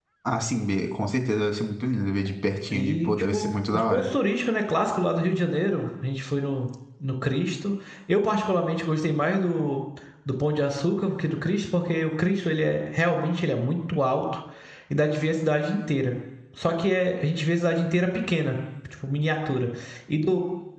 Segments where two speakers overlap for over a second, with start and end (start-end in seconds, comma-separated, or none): 2.7-4.1